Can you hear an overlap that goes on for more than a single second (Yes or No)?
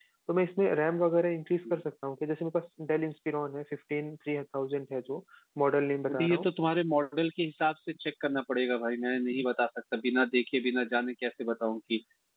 No